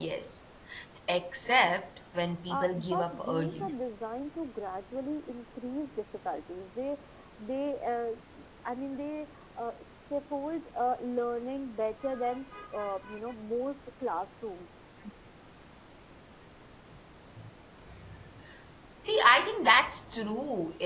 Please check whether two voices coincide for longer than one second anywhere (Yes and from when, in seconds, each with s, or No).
Yes, from 2.5 s